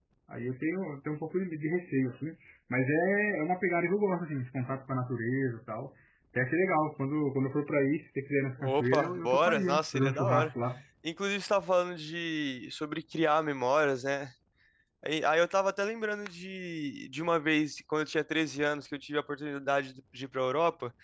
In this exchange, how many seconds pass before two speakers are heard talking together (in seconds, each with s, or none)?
8.6 s